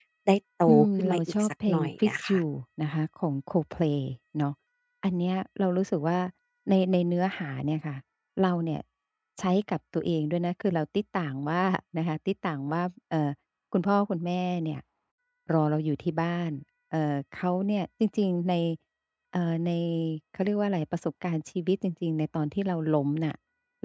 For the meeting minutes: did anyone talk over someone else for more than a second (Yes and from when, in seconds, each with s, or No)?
Yes, from 0.7 s